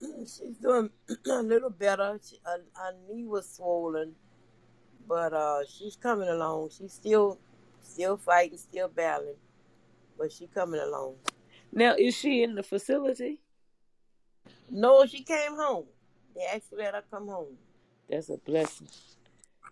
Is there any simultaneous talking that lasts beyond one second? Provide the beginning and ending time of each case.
none

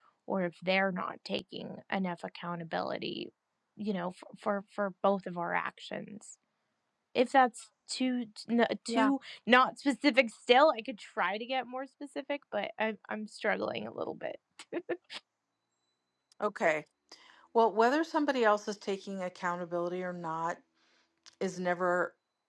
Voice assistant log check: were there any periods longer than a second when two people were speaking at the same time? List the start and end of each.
none

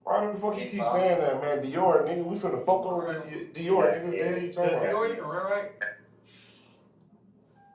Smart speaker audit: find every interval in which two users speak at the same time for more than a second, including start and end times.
3.7-5.2

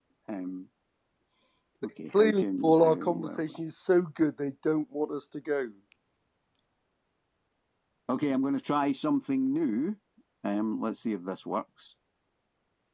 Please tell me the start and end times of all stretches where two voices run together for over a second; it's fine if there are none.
2.1-3.4

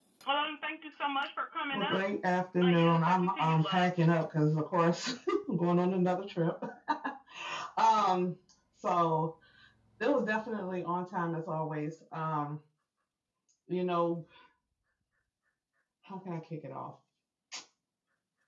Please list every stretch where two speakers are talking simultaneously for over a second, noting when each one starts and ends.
2.6-3.9

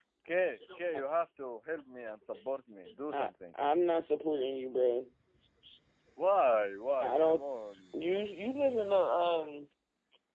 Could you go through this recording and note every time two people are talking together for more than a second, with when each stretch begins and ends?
none

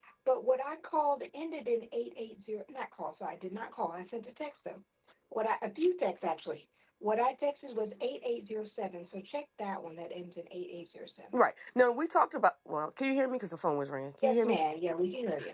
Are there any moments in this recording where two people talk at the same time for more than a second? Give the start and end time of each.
none

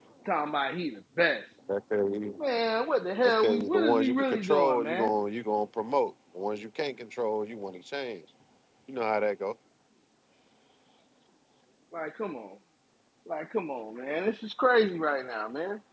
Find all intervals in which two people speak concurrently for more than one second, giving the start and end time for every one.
3.2-5.1

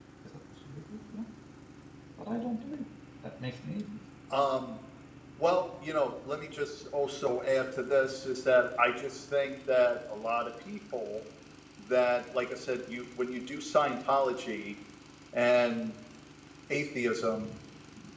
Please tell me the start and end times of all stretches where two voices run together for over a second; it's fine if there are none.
none

